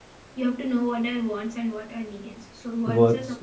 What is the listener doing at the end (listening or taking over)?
listening